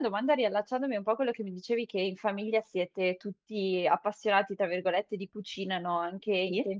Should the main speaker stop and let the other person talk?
No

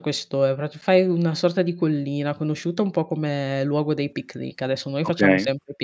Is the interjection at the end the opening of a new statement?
No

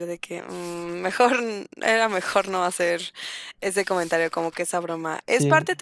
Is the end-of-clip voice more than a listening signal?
No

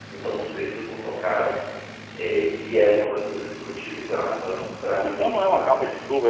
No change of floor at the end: No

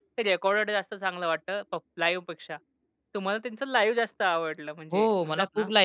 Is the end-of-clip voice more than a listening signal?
Yes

